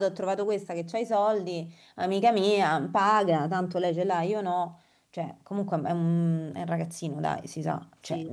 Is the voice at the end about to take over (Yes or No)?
No